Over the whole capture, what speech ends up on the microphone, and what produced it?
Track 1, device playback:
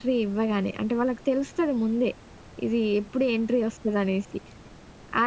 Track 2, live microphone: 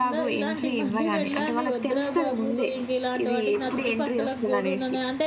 both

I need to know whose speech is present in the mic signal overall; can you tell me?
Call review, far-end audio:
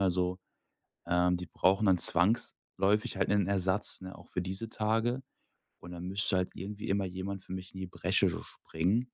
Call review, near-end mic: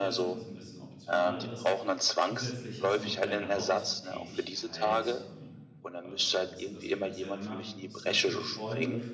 both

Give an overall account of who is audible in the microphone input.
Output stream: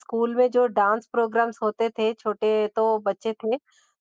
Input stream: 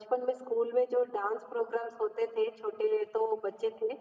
echo only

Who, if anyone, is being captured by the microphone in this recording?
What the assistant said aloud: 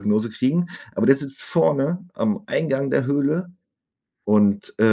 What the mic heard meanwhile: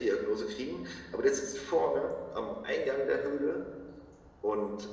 echo only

